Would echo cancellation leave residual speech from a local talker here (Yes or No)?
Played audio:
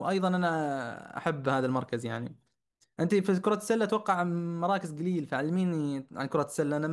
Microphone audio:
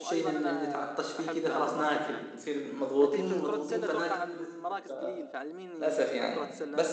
Yes